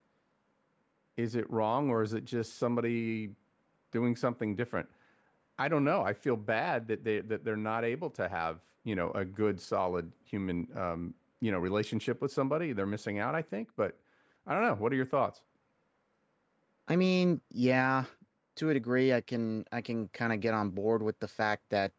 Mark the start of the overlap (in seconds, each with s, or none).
none